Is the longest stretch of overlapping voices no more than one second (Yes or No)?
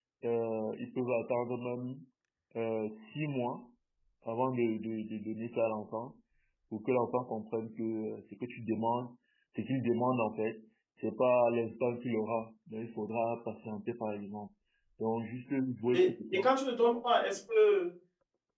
Yes